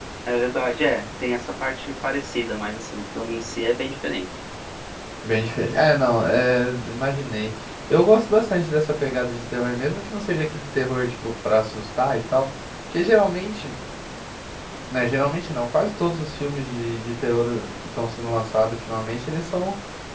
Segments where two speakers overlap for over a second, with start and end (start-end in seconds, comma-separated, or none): none